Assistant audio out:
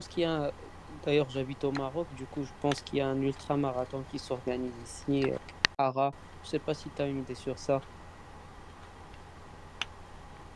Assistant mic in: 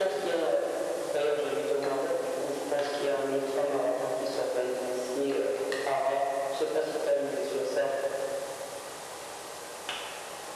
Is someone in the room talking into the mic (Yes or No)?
No